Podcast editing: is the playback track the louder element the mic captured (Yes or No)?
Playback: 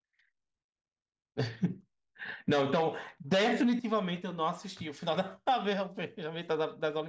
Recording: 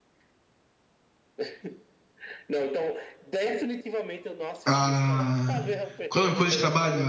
No